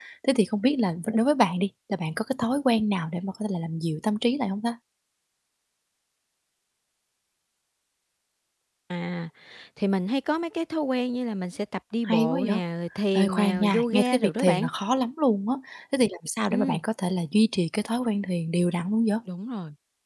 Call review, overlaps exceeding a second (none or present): present